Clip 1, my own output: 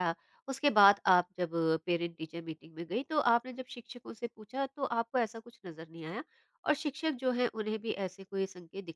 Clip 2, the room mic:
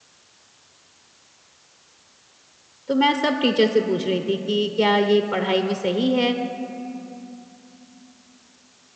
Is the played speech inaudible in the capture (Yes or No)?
Yes